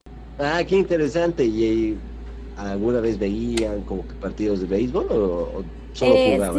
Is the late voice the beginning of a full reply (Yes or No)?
Yes